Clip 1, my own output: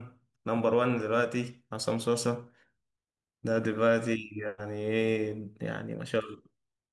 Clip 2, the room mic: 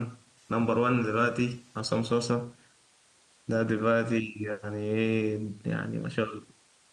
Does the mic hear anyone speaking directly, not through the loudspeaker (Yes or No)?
No